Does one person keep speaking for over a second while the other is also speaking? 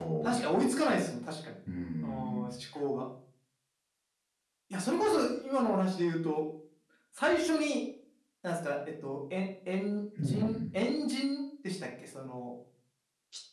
No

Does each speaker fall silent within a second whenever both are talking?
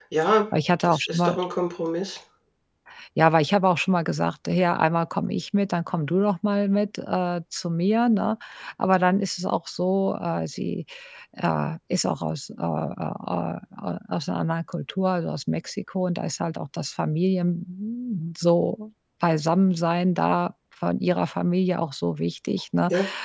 Yes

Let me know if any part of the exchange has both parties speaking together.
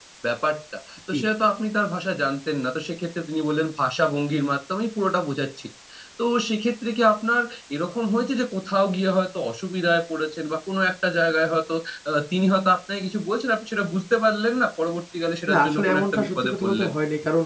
Yes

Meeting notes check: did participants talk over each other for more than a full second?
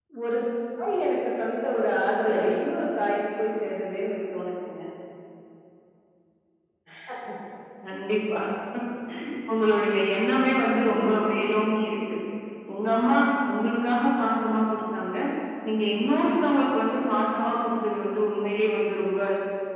No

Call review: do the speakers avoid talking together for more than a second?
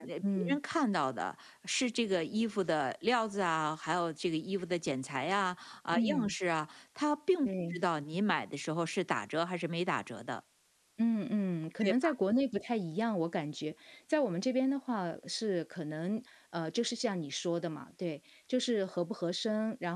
Yes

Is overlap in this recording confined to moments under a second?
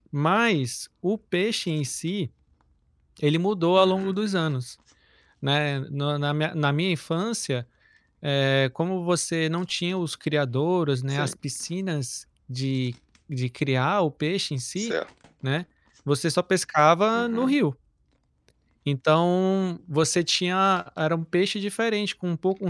Yes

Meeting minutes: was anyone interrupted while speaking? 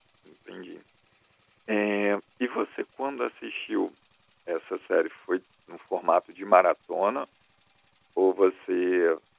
No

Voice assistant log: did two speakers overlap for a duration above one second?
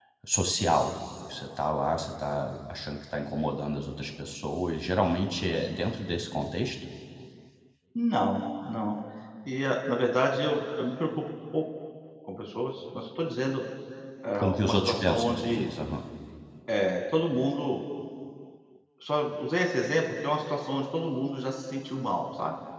Yes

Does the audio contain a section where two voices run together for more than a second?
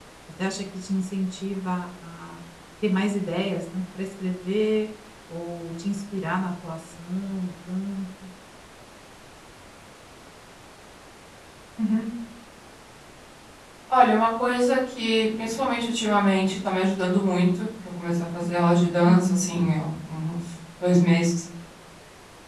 No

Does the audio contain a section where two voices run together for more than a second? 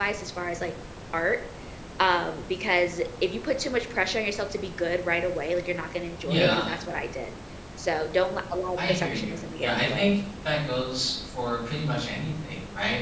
Yes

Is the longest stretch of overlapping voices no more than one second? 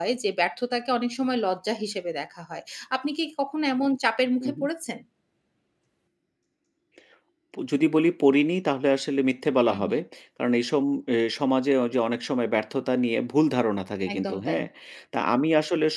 Yes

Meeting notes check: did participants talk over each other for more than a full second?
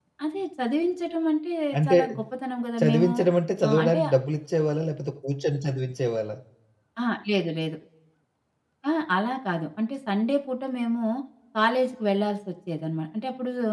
No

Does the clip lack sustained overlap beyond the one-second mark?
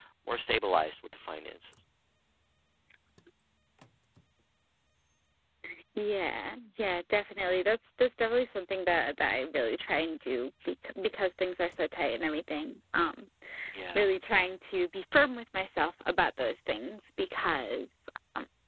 Yes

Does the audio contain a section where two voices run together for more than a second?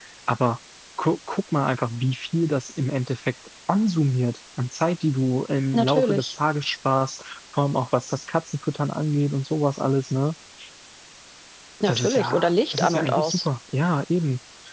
Yes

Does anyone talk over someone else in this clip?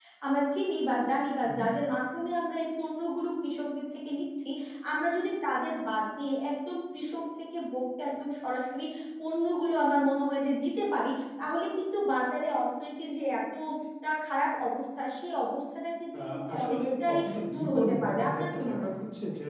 Yes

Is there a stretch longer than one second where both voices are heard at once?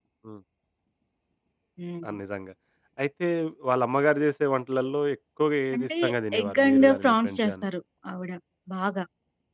Yes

